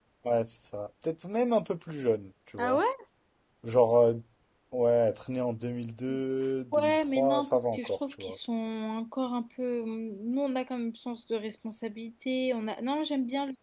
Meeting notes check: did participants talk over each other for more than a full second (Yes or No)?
Yes